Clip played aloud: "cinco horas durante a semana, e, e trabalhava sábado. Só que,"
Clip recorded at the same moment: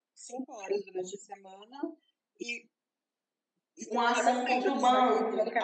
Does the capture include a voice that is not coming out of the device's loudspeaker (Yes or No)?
Yes